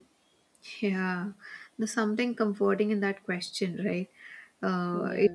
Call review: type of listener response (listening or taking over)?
listening